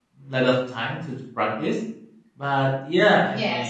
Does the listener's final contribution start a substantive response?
No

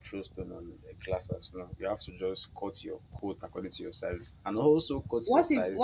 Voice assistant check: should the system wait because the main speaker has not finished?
No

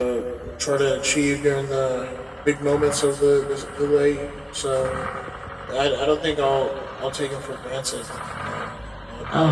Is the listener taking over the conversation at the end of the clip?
Yes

